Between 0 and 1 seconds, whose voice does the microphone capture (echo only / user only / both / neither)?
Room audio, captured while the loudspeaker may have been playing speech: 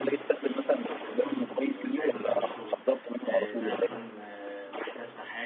both